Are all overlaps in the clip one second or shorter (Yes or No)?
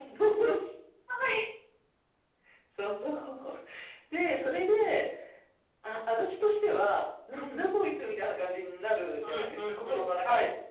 No